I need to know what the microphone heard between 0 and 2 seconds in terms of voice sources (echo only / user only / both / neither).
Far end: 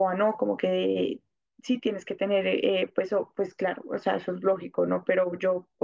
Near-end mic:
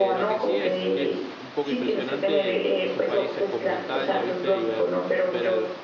both